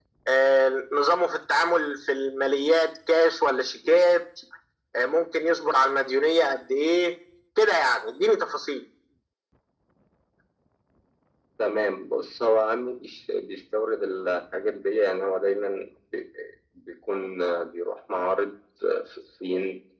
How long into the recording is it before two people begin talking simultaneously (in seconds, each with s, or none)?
none